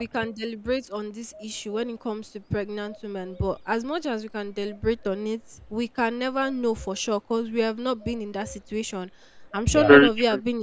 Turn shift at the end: No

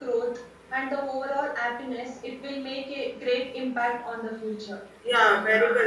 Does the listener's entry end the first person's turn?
Yes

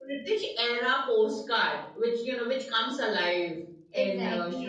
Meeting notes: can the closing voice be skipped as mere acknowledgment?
No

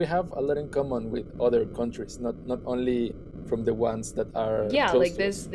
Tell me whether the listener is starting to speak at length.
Yes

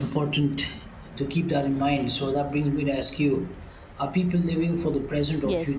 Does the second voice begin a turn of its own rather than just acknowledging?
Yes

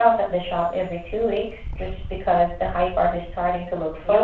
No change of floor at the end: No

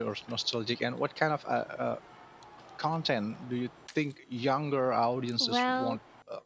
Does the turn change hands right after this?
Yes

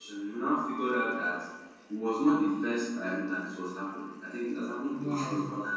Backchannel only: Yes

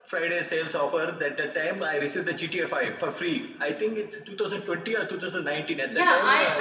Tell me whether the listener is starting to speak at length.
Yes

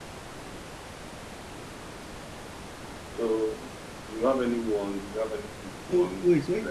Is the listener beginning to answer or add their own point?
Yes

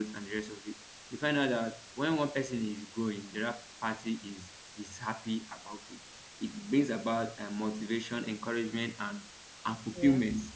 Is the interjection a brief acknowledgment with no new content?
Yes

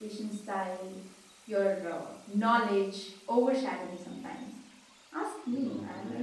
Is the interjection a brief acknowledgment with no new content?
No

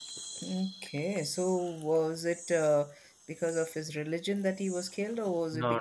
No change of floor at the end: No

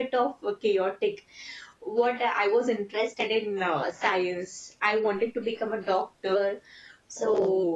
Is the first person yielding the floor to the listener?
No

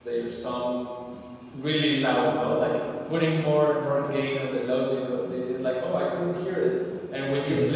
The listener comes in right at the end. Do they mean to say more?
No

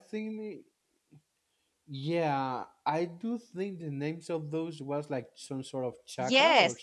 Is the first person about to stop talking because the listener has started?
Yes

